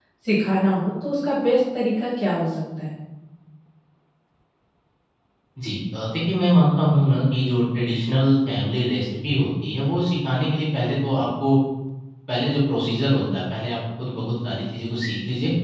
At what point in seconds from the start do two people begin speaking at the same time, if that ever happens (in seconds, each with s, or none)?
none